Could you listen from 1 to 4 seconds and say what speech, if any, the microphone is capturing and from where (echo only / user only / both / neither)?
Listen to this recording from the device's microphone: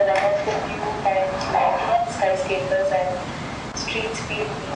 echo only